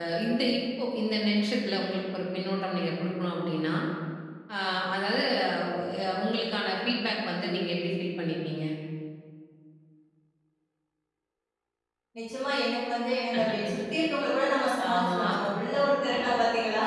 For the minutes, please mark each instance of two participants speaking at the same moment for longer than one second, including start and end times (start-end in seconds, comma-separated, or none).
none